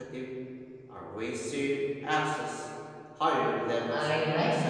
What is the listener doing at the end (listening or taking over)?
taking over